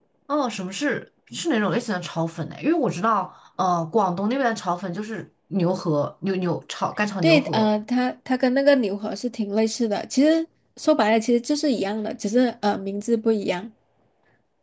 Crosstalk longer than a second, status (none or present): none